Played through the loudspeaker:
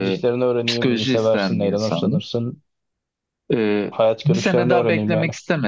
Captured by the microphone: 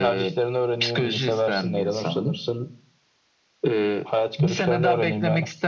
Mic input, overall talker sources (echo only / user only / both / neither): echo only